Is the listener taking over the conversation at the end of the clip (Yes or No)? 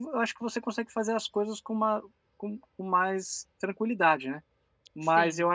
No